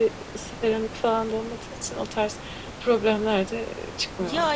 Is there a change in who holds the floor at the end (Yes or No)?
Yes